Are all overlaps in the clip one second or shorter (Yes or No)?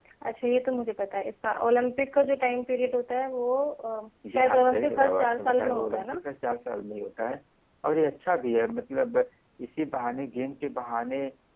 No